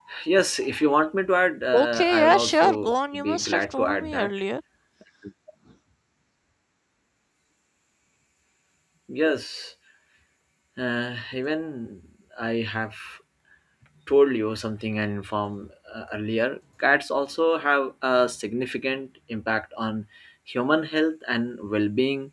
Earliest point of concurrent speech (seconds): 1.7 s

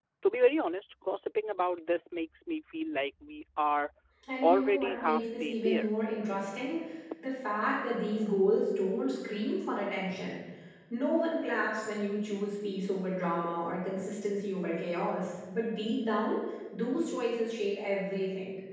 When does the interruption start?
4.4 s

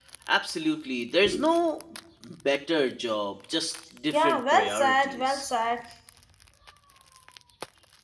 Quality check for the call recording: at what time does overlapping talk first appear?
4.1 s

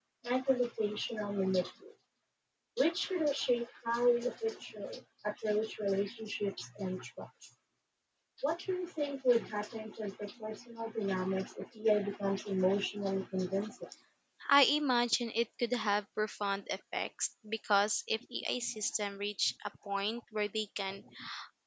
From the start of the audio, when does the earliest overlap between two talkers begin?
none

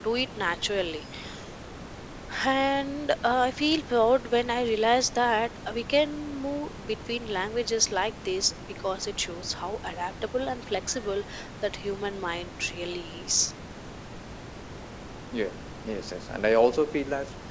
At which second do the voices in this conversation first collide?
none

